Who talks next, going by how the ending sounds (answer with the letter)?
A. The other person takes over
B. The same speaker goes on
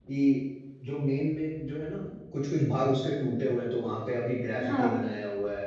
B